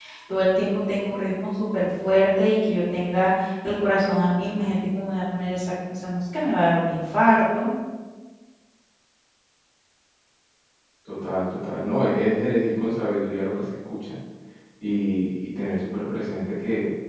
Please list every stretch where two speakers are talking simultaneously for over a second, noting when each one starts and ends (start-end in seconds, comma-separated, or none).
none